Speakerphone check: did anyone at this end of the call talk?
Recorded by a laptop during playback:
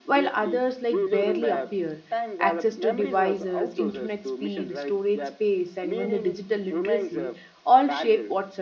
Yes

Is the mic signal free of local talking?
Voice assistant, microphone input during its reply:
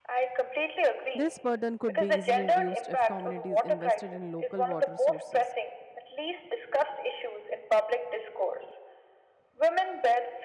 No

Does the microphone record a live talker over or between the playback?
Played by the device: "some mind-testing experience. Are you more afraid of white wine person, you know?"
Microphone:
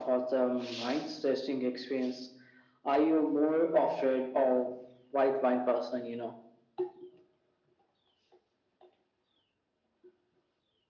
No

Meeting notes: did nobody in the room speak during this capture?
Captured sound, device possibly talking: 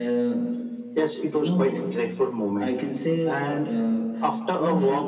Yes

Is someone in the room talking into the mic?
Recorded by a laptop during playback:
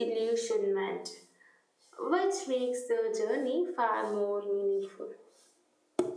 No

